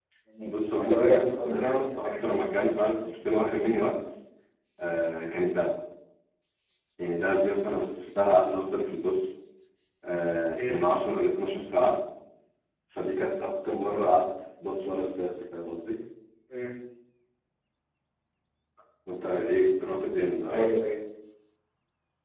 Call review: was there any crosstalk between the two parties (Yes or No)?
Yes